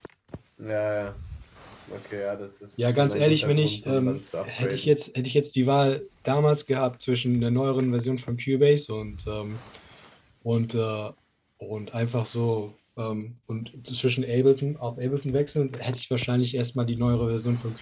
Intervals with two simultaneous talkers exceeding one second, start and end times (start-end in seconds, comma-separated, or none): 3.0-5.0